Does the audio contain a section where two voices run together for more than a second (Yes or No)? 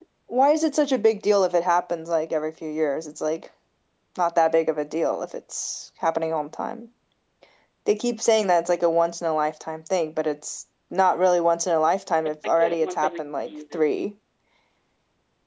Yes